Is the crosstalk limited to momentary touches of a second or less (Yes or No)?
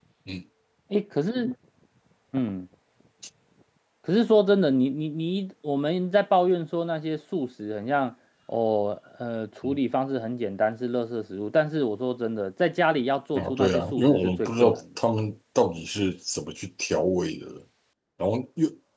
No